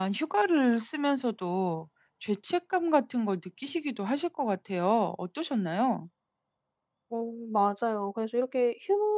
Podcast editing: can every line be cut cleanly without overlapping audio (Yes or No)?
Yes